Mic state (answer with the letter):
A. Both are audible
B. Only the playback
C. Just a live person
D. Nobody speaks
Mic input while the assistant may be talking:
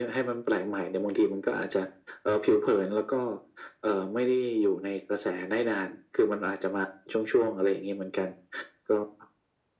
B